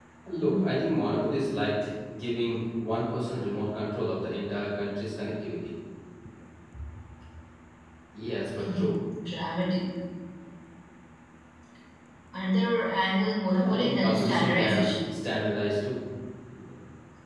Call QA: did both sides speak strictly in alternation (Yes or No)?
No